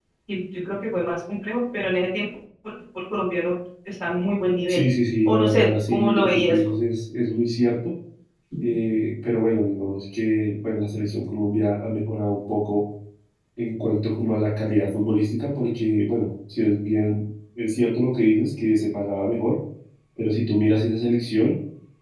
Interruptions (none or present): present